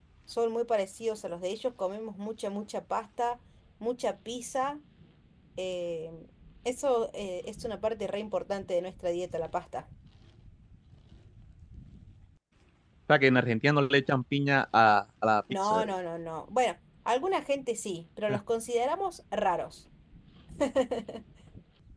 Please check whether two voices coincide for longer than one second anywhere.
No

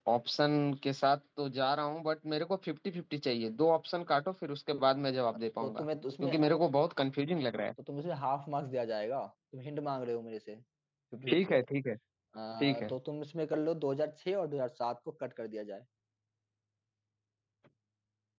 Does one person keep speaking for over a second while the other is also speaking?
No

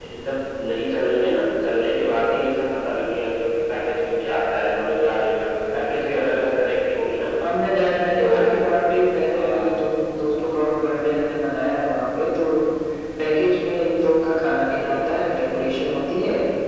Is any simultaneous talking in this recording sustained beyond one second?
No

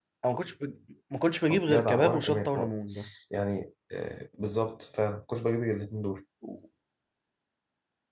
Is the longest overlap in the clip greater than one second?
Yes, from 1.5 s

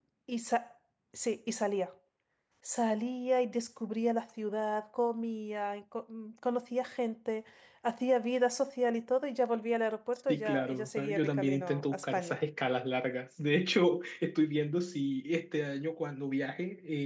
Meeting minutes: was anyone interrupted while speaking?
Yes, from 10.3 s

